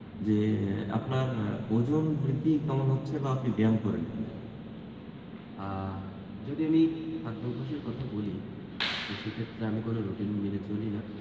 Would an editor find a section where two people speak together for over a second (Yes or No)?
No